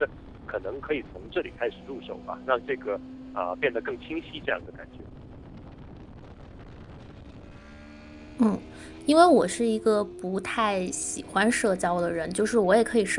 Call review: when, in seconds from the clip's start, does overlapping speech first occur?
none

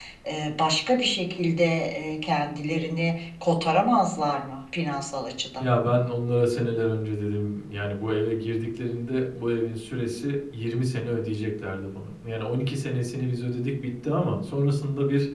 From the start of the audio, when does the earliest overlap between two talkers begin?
none

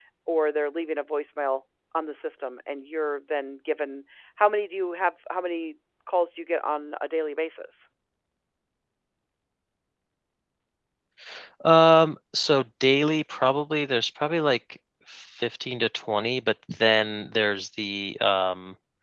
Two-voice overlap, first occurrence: none

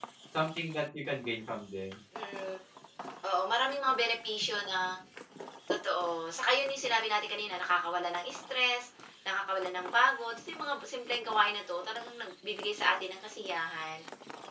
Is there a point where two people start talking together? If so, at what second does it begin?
none

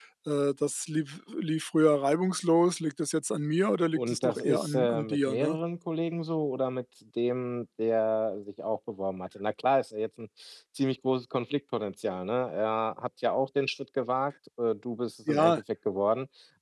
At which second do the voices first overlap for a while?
4.0 s

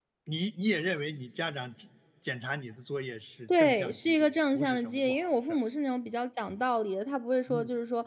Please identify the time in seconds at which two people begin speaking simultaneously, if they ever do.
3.5 s

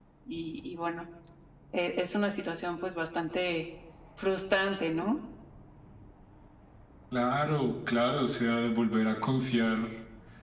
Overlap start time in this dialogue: none

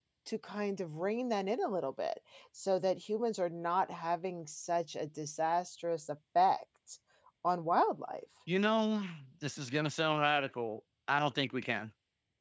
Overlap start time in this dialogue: none

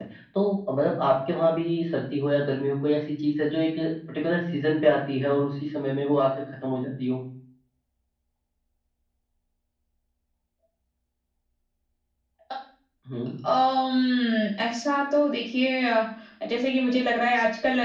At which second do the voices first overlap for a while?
none

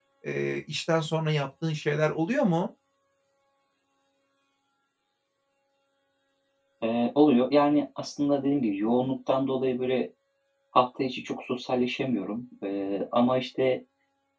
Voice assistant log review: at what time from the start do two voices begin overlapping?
none

